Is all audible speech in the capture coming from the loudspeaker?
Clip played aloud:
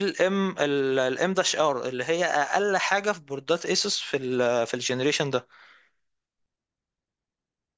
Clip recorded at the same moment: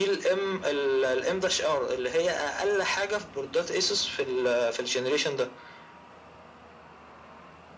Yes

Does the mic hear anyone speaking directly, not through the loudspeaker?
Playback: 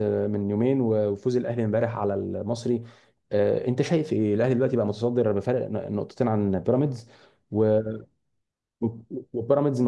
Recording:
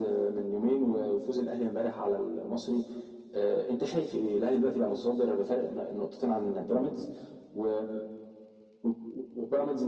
No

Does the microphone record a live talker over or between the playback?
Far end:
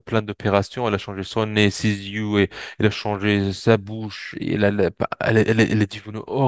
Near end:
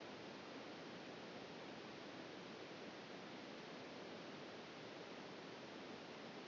No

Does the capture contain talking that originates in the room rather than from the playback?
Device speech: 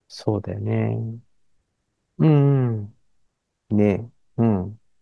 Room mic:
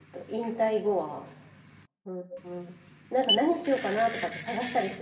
Yes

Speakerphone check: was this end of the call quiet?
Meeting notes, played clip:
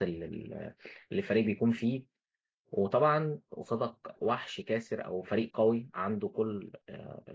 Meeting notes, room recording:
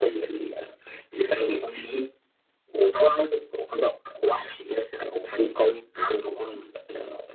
Yes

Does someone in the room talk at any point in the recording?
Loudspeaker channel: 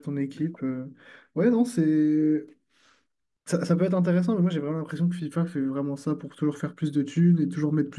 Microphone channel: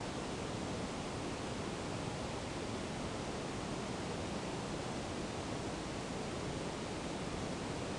No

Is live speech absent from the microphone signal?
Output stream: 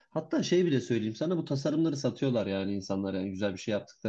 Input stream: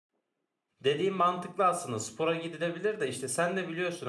No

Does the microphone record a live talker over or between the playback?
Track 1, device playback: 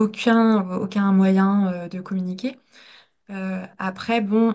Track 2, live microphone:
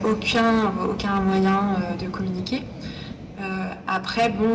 No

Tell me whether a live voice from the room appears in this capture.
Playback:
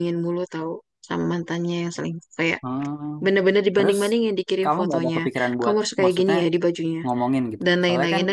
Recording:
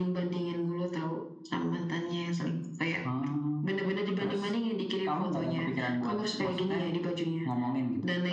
No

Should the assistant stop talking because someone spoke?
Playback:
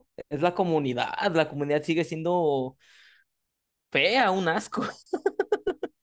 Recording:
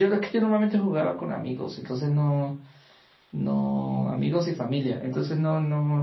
Yes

